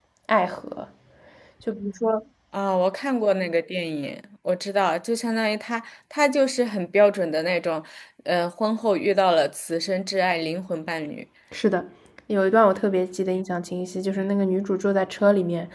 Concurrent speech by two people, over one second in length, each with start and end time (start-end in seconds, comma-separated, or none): none